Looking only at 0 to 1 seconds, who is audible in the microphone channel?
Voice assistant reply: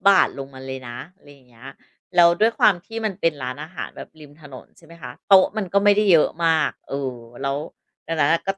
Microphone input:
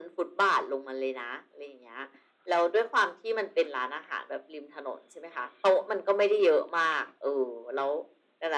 echo only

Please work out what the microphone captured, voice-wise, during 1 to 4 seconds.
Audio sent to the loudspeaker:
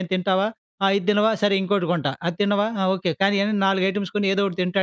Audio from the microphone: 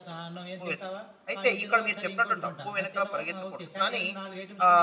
both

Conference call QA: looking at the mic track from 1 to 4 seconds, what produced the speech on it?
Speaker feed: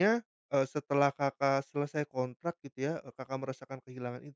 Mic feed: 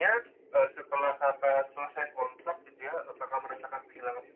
echo only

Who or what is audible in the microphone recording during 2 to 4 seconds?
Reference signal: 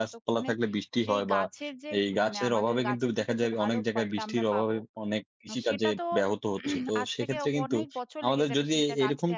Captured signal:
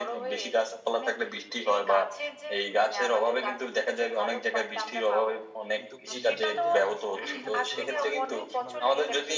echo only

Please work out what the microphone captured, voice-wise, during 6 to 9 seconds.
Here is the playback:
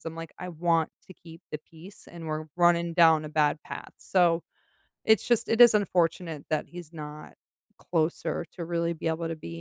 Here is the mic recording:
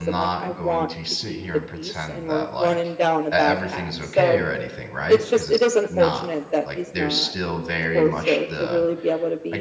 both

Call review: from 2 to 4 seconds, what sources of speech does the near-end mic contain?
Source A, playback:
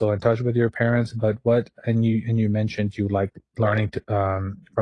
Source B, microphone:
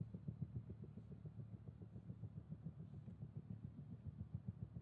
neither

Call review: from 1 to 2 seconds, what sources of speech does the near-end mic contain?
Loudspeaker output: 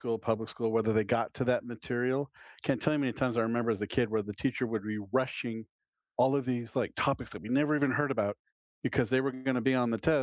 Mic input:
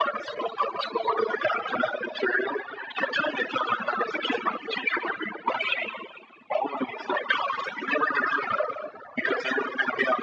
echo only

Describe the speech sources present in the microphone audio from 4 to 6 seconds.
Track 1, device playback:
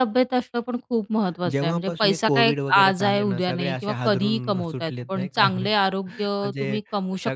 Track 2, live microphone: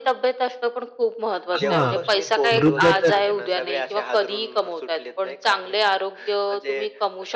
echo only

